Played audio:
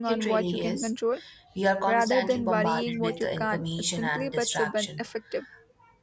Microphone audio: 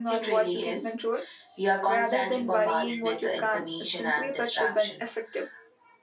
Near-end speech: none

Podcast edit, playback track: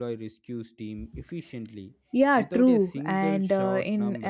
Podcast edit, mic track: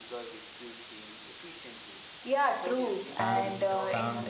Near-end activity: present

